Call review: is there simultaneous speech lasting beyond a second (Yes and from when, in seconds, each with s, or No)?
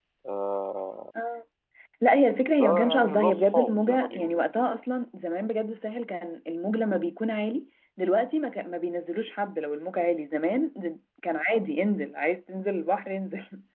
Yes, from 2.6 s